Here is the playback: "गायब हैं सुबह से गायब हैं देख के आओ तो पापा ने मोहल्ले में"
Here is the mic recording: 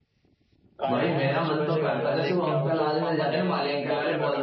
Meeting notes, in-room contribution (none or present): present